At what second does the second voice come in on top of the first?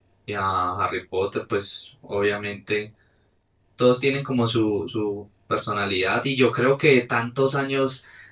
none

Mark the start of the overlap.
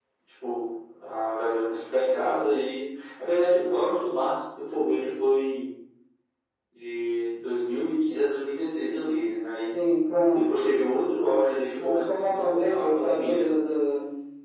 12 s

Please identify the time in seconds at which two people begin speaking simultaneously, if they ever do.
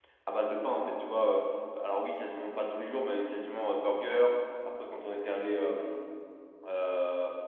none

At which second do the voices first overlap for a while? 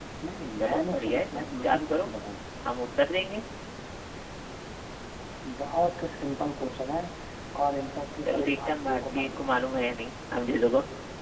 1 s

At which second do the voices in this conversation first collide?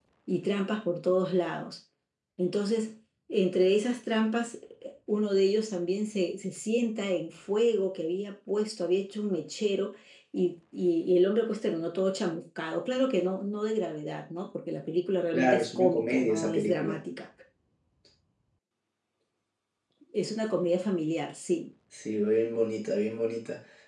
15 s

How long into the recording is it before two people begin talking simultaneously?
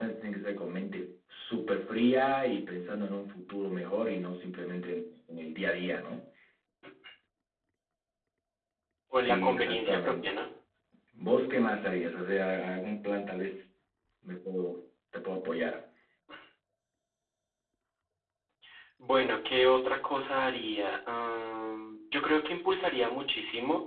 9 s

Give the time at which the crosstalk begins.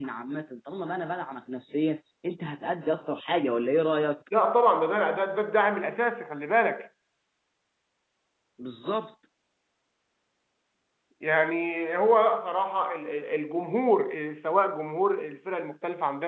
none

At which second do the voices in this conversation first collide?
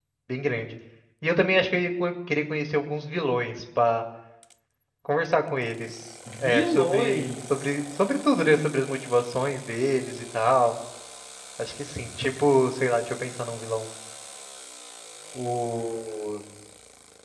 6 s

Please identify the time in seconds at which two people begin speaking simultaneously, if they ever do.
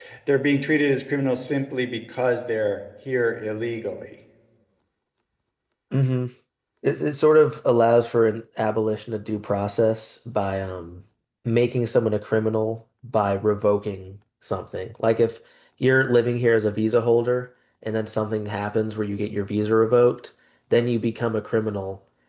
none

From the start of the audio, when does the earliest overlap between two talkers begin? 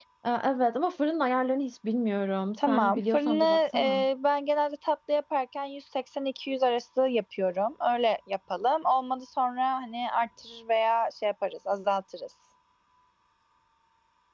3 s

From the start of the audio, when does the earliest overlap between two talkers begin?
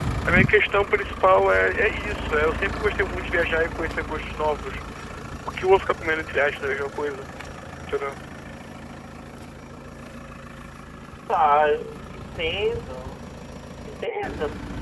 none

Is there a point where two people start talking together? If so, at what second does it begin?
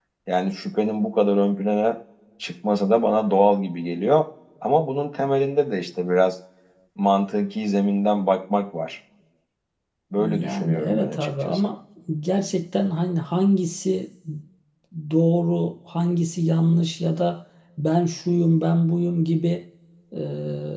10 s

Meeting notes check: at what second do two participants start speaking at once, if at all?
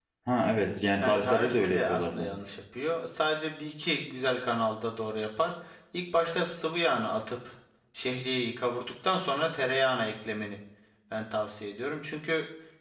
1 s

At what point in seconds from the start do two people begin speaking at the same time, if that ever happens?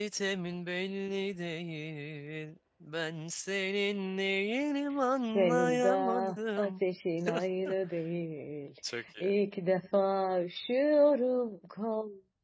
5 s

